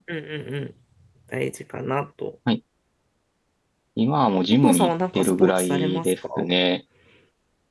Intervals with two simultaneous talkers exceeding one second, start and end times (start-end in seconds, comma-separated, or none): 4.6-6.5